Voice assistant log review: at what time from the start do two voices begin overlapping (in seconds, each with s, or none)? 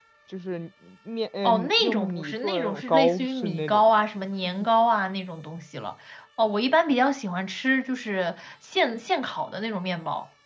1.4 s